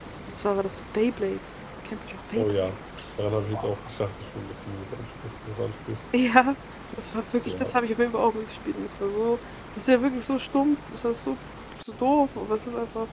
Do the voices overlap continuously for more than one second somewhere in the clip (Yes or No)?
No